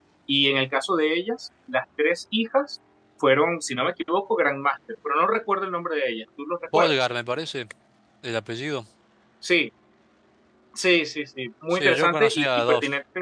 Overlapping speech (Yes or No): Yes